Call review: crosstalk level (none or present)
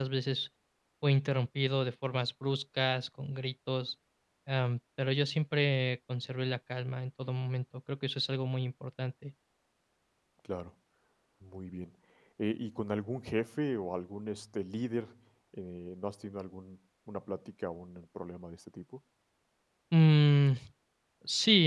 none